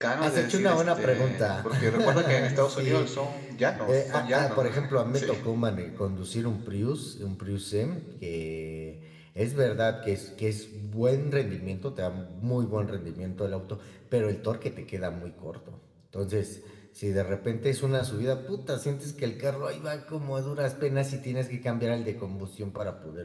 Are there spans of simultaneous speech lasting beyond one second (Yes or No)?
Yes